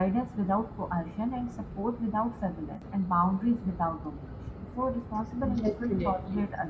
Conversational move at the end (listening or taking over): listening